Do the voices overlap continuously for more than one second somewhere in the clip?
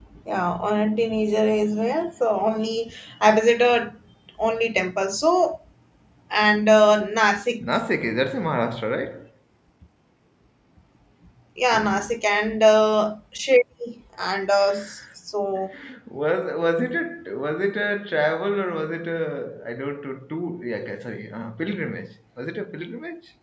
No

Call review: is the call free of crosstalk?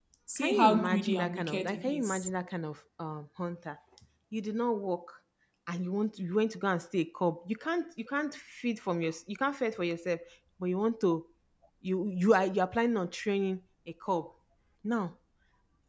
No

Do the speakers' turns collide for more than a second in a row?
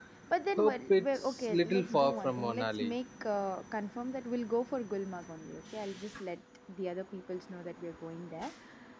Yes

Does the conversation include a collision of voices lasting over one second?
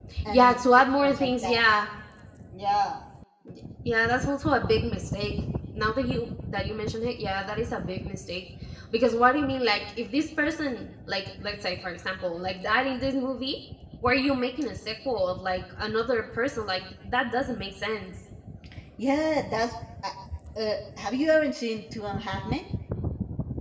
Yes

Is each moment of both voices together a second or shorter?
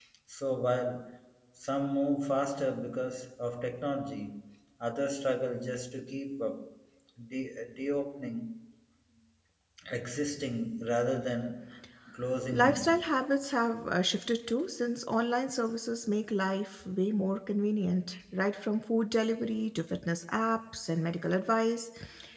Yes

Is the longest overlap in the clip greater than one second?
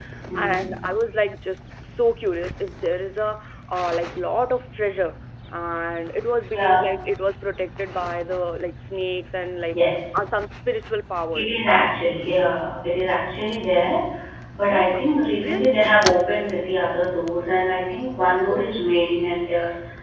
No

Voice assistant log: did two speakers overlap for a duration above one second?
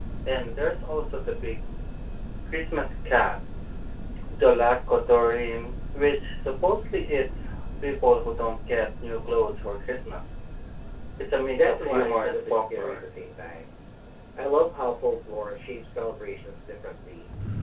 Yes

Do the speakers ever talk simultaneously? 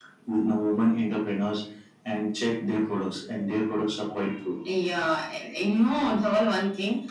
No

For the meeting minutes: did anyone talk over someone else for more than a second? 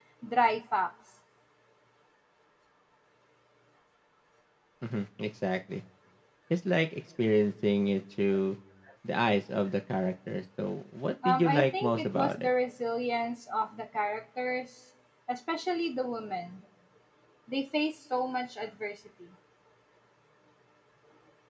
Yes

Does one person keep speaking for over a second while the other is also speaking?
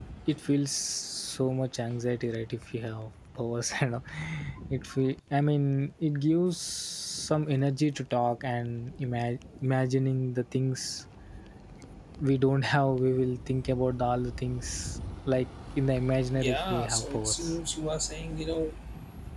Yes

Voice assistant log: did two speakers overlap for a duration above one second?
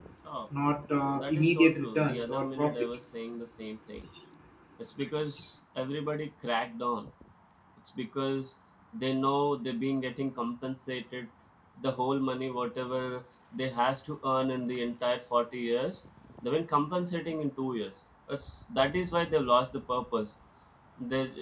Yes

